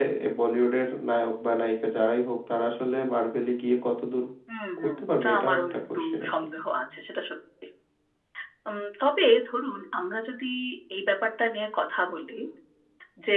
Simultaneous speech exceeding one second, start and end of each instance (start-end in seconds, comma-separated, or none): 4.8-6.3